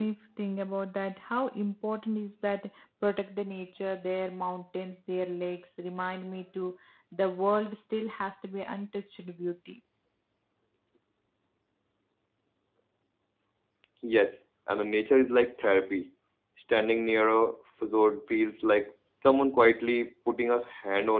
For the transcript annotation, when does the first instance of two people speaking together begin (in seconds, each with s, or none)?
none